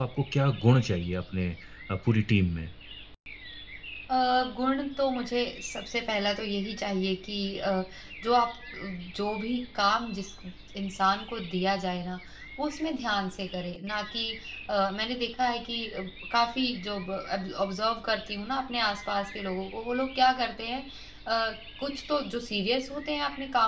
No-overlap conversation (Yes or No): Yes